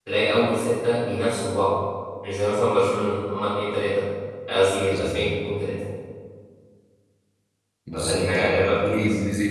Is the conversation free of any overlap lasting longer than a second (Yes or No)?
No